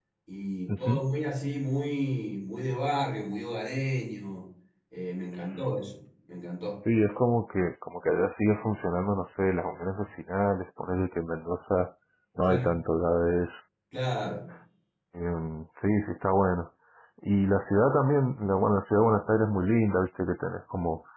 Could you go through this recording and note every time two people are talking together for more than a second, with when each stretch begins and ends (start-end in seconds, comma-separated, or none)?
none